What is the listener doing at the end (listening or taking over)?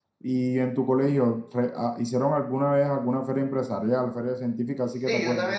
taking over